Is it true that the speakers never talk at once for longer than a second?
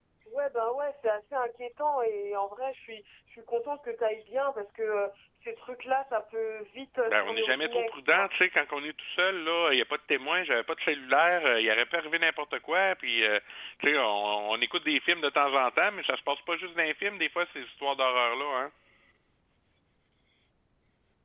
No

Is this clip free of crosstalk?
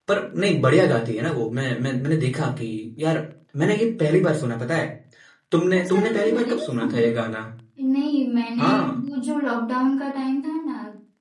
No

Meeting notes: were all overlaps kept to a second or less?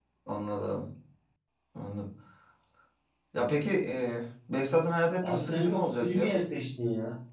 No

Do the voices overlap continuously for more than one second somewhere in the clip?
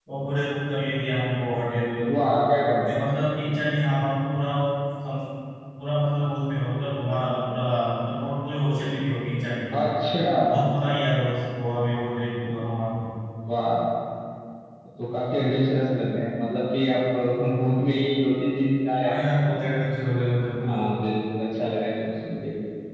No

